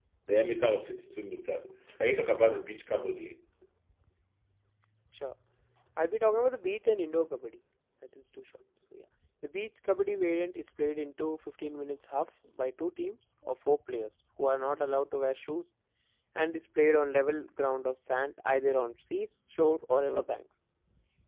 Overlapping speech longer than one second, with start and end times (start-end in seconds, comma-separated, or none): none